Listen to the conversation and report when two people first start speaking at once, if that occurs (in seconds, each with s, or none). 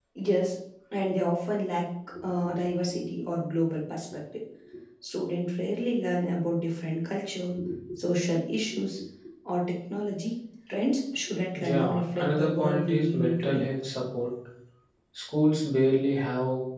11.5 s